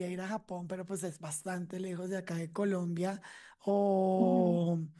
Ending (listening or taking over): listening